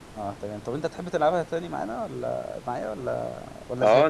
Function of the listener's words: taking over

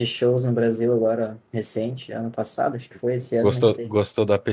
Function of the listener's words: taking over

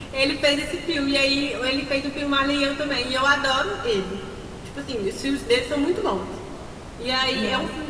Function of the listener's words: listening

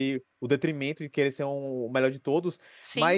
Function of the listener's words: listening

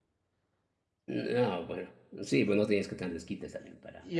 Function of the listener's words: taking over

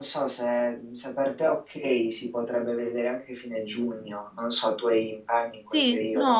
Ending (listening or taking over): taking over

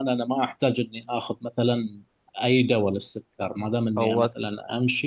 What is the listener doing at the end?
listening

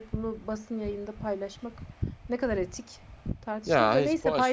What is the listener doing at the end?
taking over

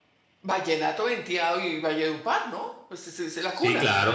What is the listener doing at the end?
taking over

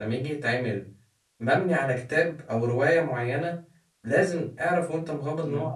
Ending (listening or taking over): listening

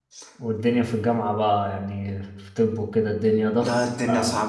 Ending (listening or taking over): taking over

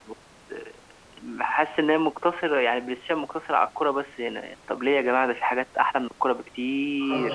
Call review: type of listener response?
taking over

